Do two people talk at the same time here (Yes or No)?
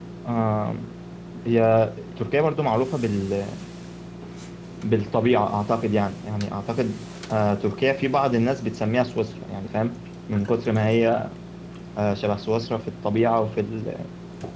No